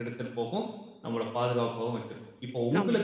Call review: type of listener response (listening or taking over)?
listening